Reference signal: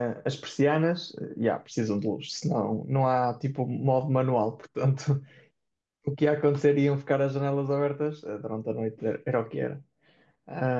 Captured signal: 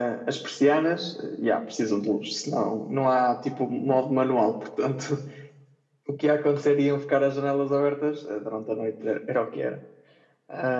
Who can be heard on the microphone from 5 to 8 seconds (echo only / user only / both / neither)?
echo only